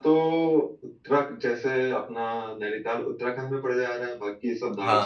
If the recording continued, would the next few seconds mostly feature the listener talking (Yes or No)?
No